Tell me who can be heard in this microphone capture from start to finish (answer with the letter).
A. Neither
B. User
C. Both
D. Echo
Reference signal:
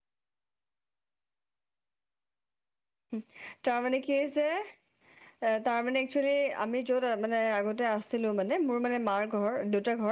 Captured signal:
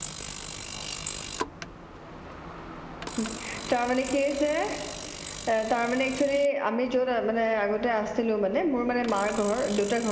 D